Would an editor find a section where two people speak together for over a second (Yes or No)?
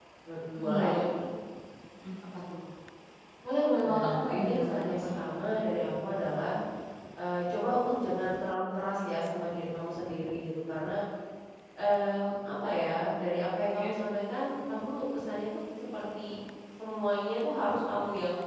Yes